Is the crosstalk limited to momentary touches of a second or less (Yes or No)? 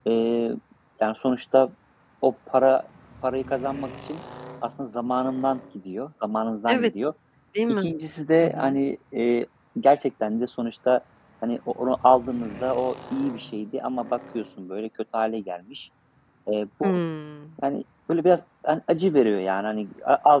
Yes